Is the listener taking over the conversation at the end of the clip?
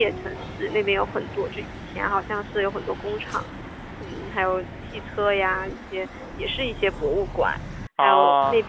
No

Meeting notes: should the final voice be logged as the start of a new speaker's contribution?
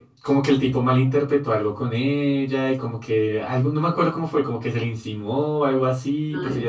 No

